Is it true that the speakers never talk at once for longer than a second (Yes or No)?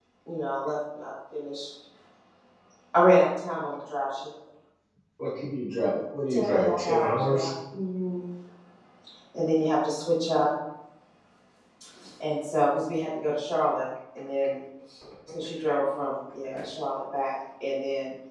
No